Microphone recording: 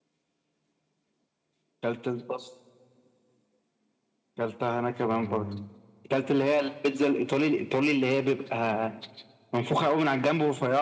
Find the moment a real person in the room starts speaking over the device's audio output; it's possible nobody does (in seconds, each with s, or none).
none